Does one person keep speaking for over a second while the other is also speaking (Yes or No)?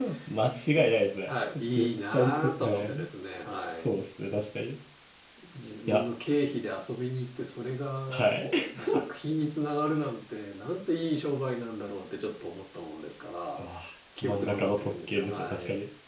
Yes